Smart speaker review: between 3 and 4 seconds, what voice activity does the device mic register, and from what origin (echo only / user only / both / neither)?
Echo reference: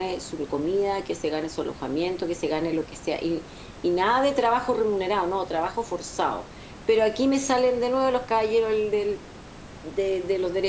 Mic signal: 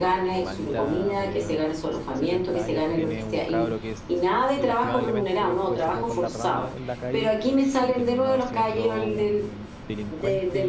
both